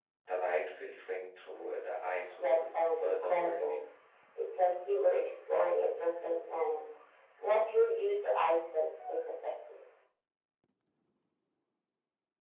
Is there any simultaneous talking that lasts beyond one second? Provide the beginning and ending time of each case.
2.3-3.8

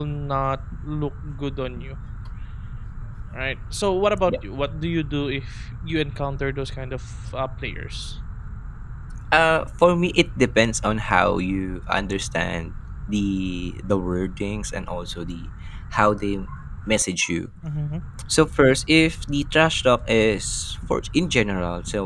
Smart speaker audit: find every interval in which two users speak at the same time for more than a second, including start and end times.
none

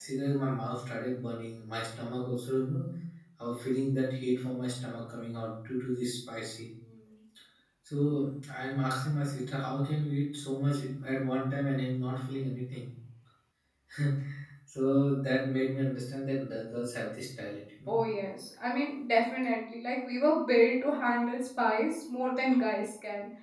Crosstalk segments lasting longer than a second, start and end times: none

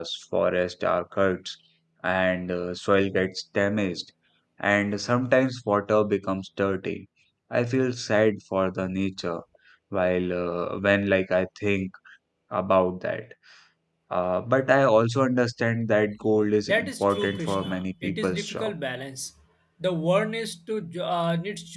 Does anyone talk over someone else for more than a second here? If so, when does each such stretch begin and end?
16.7-18.7

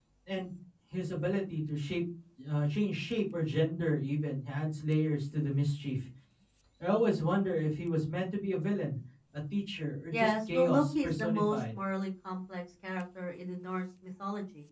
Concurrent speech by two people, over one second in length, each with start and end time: 10.1-11.8

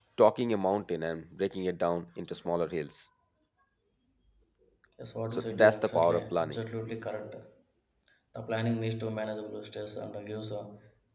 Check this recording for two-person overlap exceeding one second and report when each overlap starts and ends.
5.3-6.6

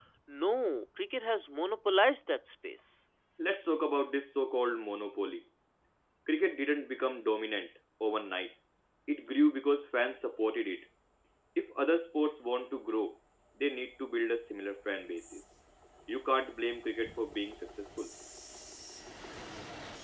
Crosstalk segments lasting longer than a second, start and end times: none

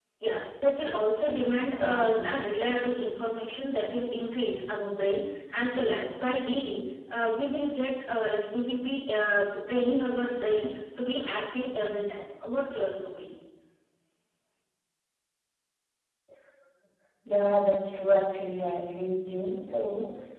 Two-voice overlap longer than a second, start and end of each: none

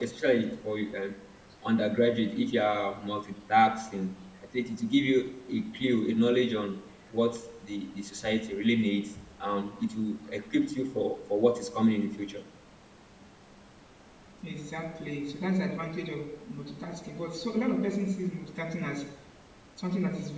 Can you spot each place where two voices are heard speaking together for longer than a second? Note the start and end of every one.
none

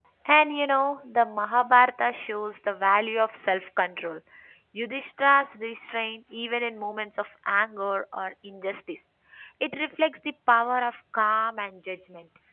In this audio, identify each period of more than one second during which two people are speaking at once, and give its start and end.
none

